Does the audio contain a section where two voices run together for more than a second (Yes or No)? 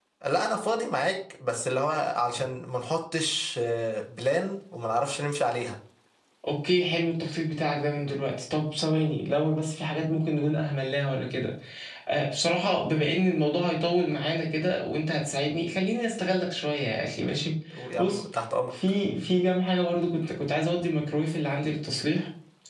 No